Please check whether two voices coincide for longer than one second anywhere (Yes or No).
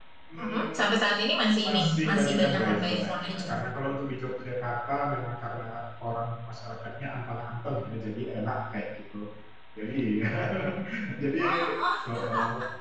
Yes